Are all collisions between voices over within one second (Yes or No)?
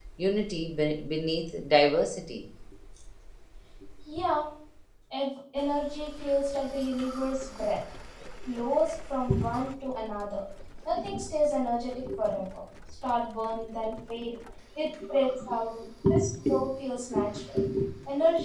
Yes